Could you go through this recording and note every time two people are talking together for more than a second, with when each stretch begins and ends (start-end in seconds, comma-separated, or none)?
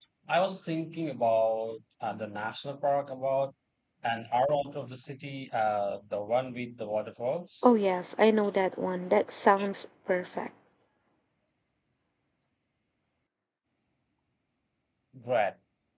none